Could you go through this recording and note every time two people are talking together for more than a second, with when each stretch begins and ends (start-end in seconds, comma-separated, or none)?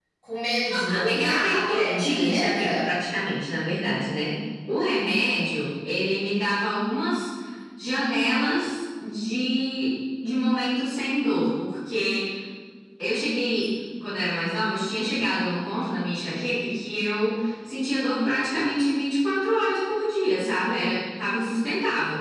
0.7-2.9